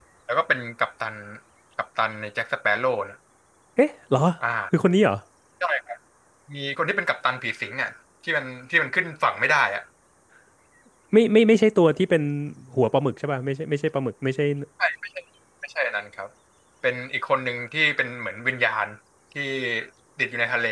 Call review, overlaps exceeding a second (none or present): none